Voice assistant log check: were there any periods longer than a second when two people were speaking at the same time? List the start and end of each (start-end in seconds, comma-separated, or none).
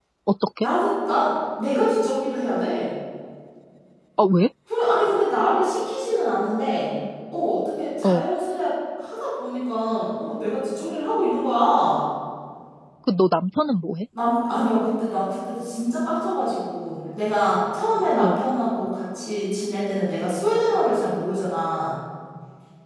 none